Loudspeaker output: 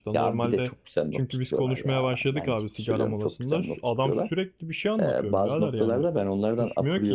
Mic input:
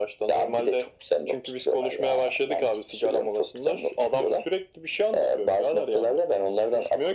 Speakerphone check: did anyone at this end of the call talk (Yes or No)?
No